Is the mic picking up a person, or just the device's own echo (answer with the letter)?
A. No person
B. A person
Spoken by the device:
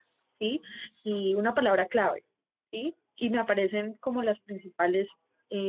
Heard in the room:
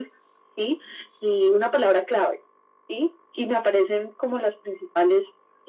A